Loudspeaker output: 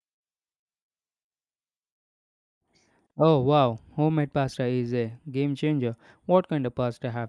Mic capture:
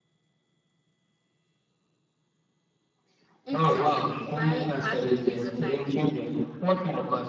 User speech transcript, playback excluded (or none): Exactly. My partner is a fantastic,